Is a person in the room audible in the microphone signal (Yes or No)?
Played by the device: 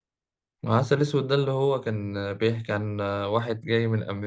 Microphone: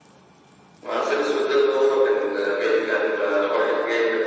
No